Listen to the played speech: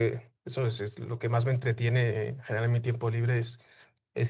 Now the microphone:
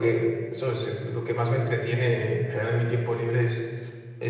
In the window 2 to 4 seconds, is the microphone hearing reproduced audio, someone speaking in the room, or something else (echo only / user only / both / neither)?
echo only